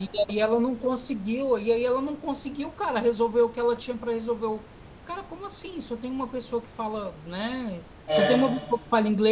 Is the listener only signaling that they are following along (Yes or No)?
Yes